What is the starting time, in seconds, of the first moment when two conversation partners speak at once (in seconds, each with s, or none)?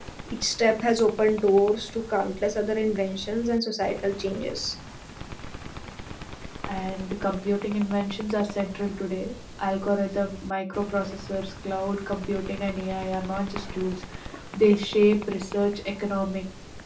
none